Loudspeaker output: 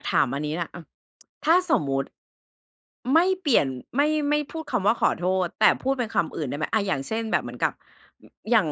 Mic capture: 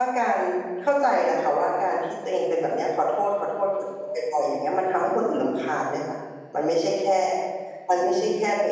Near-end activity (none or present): present